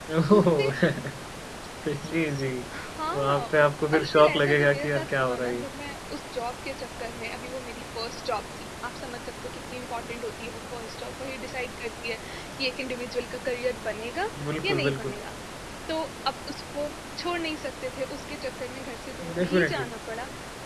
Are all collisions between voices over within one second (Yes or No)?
No